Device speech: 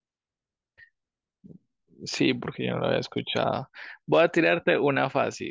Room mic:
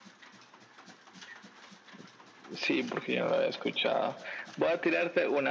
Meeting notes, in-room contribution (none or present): none